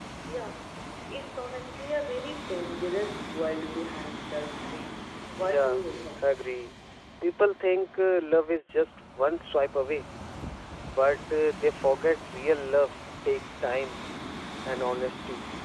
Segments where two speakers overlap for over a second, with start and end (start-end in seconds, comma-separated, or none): none